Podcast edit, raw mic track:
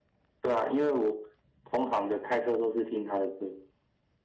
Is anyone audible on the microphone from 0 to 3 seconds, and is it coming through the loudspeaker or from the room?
echo only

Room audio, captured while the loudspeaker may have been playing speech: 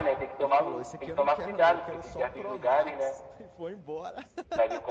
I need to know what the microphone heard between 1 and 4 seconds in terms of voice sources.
both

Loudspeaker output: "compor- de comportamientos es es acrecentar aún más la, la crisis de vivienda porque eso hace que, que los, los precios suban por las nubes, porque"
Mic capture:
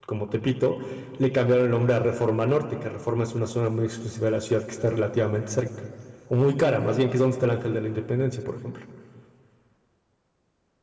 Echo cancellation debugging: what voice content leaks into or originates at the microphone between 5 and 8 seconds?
user only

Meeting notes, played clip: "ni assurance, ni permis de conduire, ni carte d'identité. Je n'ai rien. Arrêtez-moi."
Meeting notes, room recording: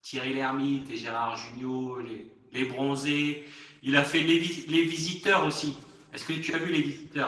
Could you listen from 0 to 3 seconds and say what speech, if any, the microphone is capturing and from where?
user only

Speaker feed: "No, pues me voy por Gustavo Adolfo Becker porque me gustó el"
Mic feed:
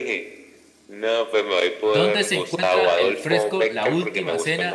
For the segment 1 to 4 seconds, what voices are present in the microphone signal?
both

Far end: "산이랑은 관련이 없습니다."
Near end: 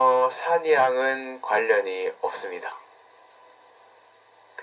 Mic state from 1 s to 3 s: echo only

